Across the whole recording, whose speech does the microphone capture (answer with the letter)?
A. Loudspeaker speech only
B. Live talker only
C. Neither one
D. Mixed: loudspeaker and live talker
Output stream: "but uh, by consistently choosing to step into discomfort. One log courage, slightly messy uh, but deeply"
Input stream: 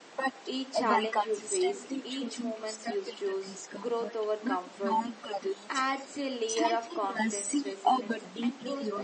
D